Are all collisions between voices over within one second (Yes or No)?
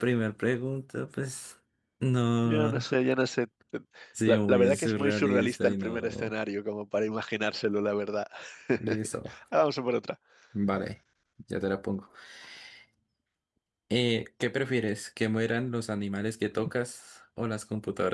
No